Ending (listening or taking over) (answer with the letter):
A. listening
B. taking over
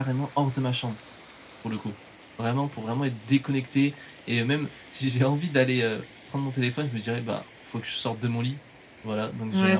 B